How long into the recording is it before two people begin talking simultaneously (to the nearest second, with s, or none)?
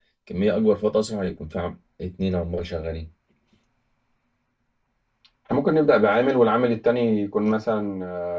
none